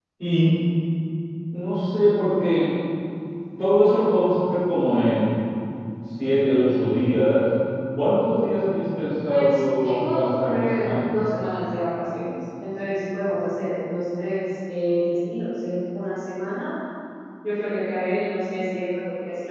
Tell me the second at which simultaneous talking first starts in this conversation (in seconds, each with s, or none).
9.3 s